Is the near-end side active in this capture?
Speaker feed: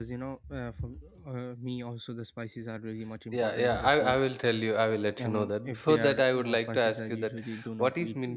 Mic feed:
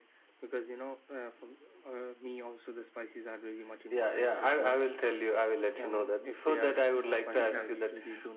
Yes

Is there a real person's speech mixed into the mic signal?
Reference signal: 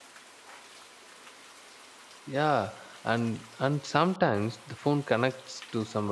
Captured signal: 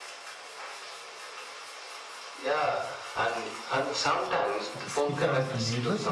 Yes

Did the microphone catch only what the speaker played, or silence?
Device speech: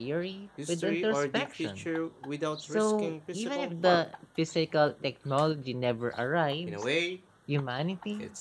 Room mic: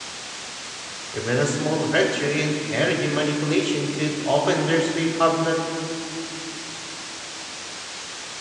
No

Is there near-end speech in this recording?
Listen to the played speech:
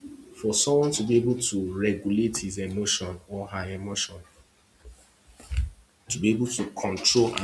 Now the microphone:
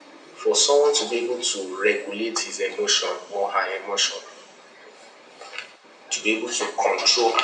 No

